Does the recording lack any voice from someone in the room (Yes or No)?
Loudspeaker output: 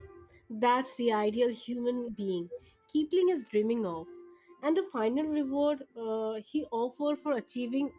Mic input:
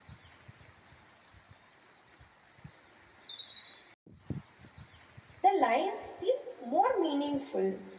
No